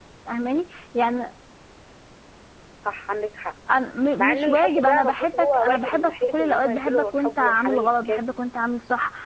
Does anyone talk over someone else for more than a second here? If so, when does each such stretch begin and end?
4.2-8.2

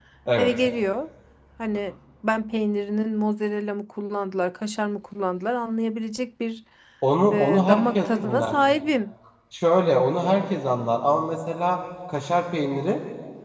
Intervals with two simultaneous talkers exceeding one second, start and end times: 7.3-8.5

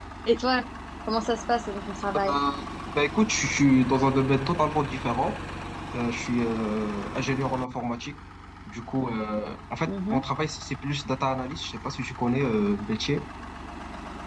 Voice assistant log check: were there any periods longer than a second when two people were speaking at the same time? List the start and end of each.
none

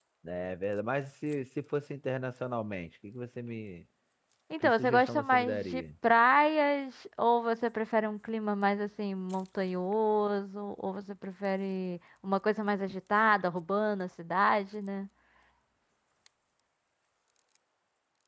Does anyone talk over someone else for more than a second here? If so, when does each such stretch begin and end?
4.6-5.8

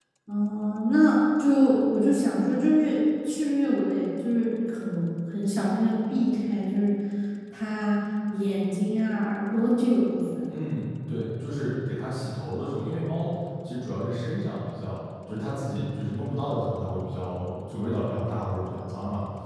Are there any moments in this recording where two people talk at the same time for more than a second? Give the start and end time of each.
none

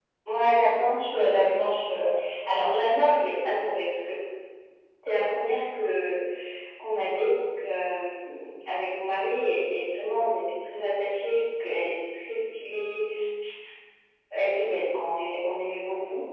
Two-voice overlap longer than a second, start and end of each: none

